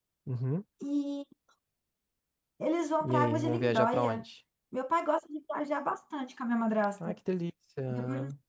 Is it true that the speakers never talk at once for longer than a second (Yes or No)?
No